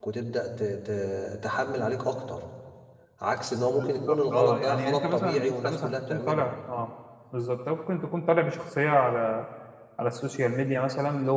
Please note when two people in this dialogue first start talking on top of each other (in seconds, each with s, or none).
3.8 s